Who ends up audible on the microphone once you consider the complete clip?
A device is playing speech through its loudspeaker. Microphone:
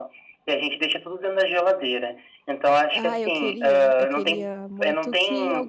both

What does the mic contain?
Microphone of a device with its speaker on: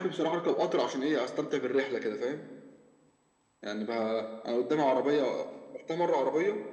echo only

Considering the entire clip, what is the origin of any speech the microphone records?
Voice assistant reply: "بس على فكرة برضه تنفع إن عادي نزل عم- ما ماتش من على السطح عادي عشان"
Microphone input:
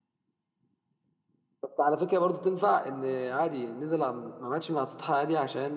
echo only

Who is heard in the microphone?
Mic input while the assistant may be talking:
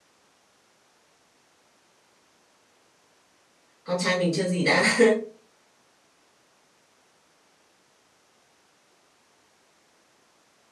user only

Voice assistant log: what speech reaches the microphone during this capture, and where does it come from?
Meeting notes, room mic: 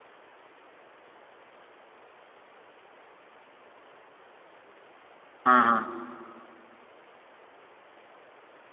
user only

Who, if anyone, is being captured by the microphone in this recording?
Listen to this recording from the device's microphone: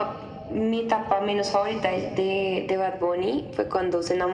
echo only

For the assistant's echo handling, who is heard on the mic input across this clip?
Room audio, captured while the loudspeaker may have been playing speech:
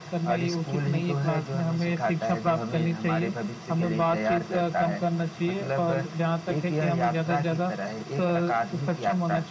echo only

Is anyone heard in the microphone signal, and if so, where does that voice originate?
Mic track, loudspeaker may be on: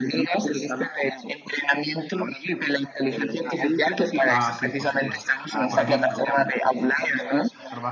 both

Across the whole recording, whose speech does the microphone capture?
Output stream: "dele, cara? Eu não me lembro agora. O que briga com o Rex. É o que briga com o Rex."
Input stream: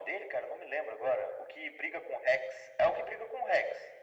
echo only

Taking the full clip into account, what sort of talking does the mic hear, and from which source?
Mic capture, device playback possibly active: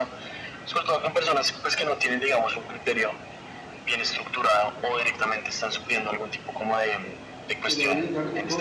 both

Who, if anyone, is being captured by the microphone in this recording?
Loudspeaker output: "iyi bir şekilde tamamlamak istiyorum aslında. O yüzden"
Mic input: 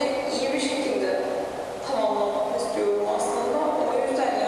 echo only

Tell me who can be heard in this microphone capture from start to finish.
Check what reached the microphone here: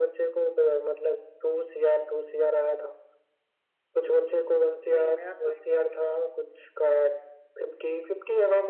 both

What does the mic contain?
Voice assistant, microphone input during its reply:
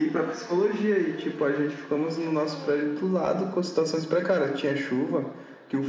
echo only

